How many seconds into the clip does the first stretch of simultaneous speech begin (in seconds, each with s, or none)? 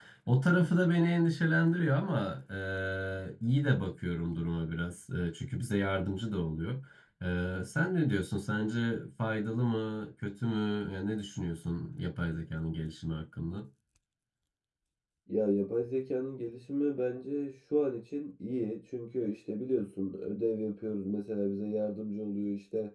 none